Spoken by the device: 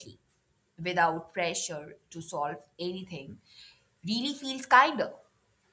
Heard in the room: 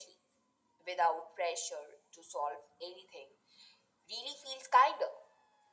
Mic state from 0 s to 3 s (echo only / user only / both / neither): echo only